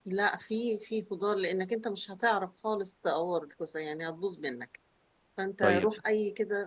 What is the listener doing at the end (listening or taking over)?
listening